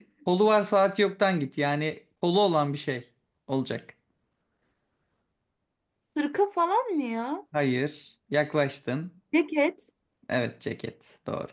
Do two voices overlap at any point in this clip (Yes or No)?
No